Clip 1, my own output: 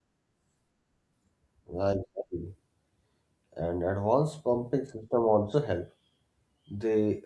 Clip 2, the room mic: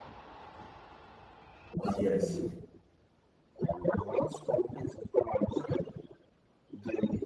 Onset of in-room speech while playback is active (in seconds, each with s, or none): 2.0 s